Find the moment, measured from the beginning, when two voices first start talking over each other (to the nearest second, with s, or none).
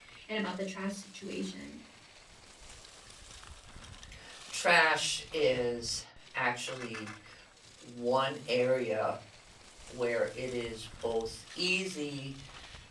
none